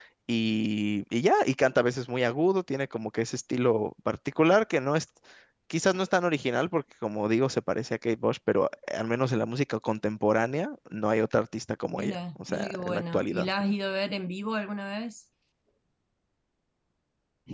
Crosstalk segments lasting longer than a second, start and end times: 11.9-13.7

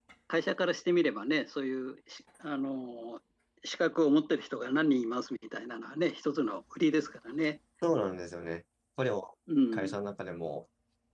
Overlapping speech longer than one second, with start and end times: none

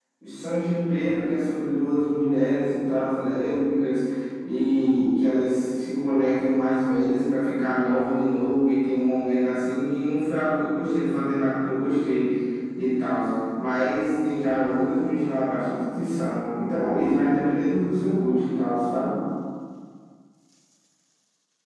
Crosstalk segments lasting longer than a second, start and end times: none

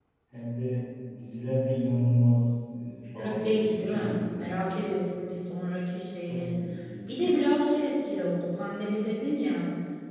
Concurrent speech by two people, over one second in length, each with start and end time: 3.2-4.7

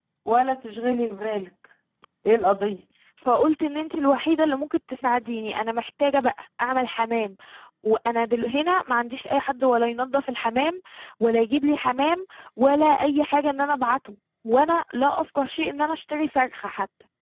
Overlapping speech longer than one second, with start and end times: none

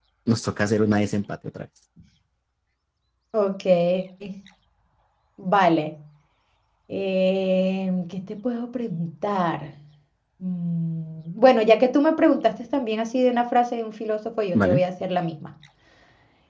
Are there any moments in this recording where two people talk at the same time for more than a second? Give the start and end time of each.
none

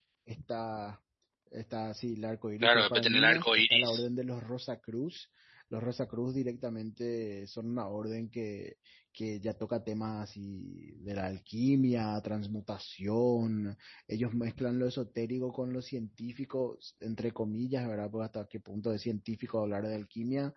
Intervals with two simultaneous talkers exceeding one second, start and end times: 2.6-4.0

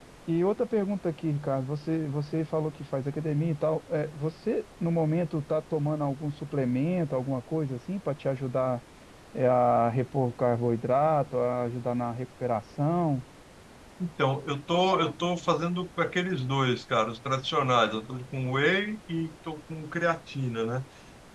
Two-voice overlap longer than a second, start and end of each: none

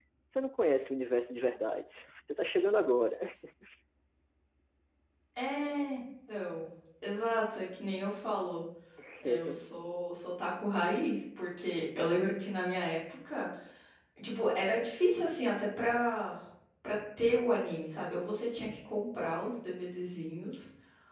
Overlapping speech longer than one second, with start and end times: none

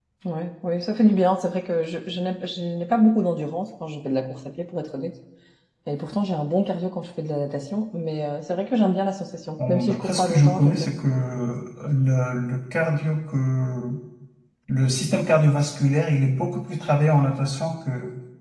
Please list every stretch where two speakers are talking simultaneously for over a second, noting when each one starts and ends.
9.6-10.9

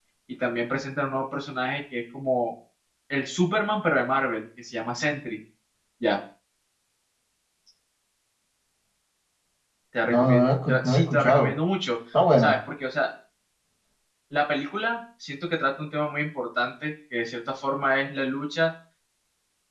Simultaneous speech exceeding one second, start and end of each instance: 10.1-11.5

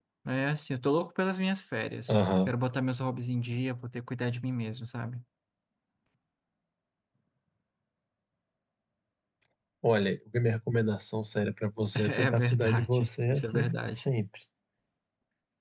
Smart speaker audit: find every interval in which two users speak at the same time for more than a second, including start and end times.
12.1-14.0

